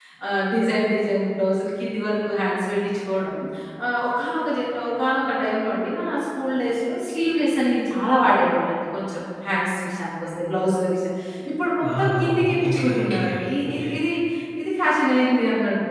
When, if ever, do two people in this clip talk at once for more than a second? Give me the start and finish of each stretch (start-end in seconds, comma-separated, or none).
11.8-13.2